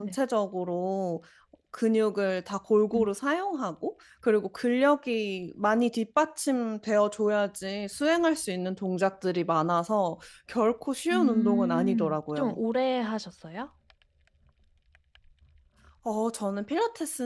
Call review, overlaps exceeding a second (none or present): present